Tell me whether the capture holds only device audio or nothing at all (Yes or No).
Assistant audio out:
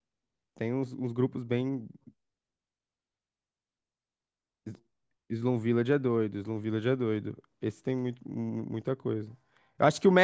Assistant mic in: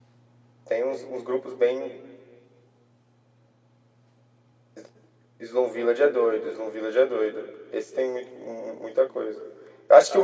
Yes